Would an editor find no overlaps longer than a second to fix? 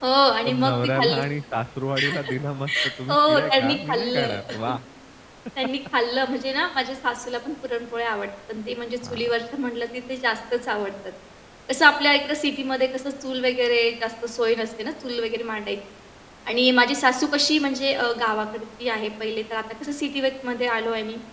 No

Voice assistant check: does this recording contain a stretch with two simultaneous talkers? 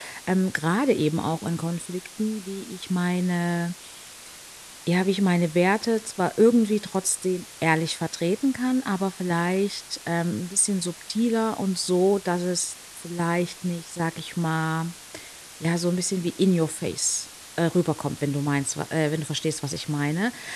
No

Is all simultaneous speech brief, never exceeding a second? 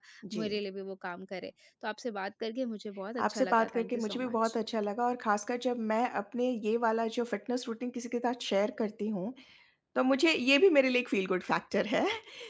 No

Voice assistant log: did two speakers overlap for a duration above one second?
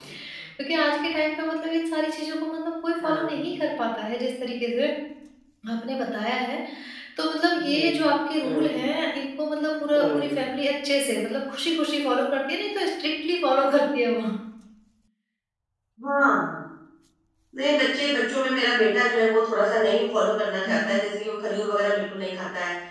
No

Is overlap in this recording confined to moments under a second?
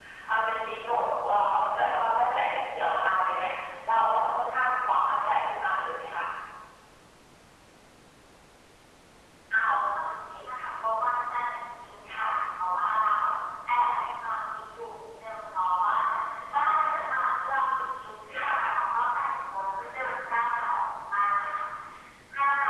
Yes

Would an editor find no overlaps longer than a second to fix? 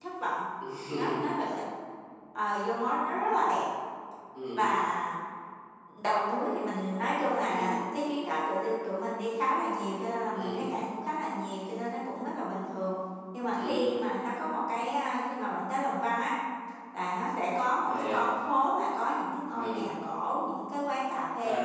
Yes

